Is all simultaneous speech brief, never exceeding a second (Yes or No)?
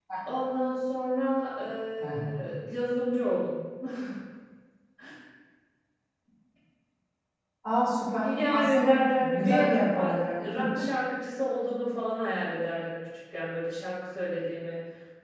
No